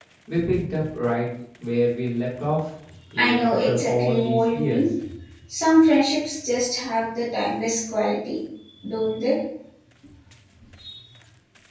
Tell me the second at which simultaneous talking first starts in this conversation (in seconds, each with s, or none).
3.2 s